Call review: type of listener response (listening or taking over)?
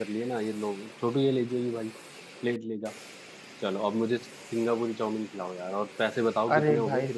taking over